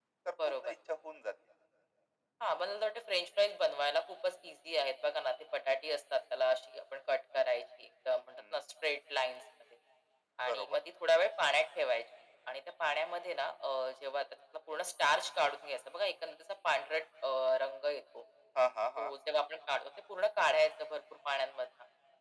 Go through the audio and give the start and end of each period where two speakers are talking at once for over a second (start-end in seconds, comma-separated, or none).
none